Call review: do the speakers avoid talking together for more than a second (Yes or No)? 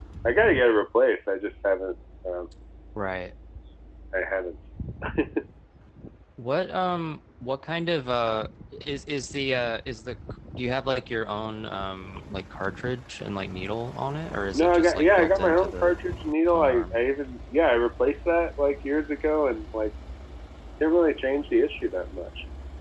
No